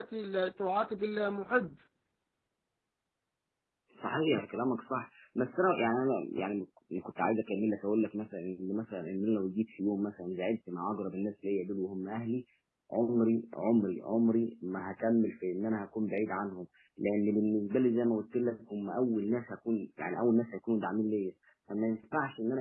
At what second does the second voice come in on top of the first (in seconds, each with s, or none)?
none